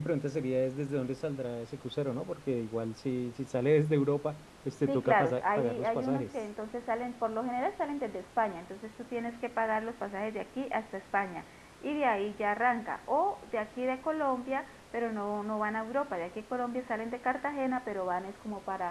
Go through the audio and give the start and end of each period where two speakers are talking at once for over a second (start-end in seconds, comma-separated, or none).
4.9-6.3